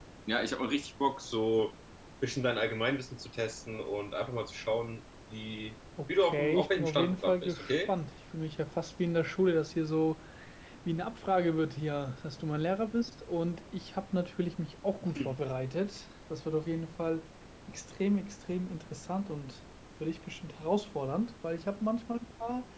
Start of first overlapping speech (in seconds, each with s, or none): 6.2 s